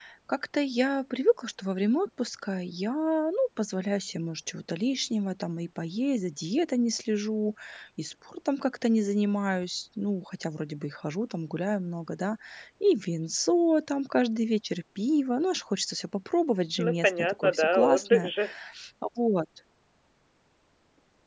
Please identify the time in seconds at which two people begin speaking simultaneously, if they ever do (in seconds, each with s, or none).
16.8 s